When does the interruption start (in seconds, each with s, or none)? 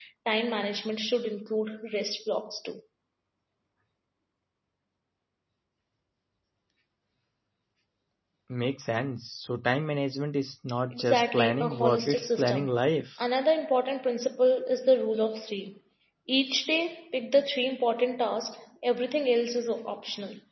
10.9 s